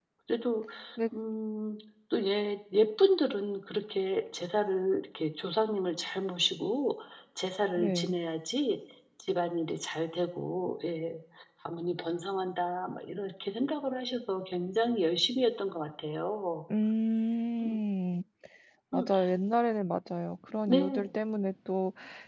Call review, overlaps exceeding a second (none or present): none